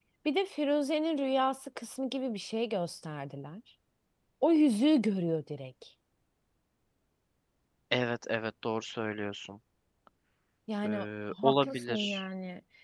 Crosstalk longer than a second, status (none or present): present